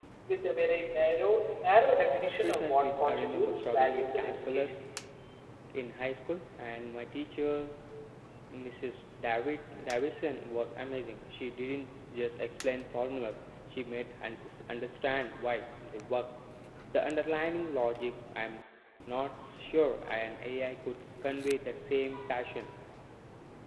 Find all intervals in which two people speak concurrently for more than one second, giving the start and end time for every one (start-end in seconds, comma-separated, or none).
2.4-4.7